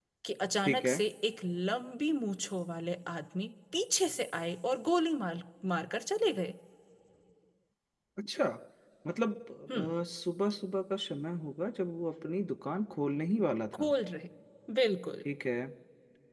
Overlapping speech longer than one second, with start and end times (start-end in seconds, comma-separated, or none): none